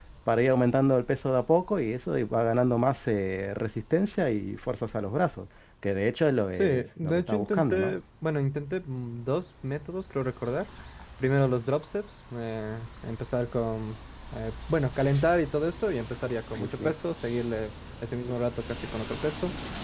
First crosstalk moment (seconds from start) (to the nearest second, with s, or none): 7 s